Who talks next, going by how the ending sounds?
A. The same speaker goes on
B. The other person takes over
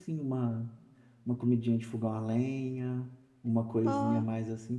A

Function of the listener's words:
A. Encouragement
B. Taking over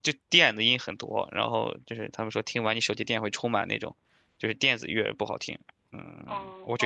B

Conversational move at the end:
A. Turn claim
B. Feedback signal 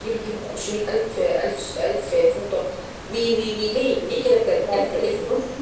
A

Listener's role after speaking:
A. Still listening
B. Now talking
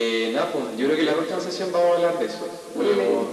A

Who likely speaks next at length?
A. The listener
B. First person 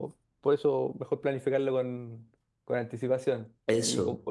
B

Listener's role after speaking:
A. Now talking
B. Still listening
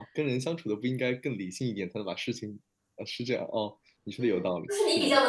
A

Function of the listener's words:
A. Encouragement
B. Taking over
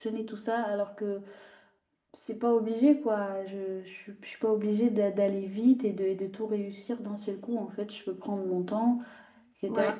A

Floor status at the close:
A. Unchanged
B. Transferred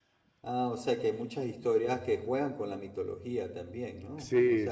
B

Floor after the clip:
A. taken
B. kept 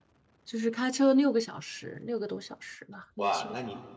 A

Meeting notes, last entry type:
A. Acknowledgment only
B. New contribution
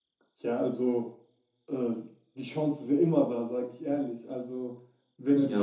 B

